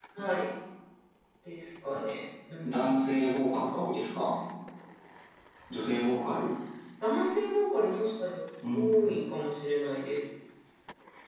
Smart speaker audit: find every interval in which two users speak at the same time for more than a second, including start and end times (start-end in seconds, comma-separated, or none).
none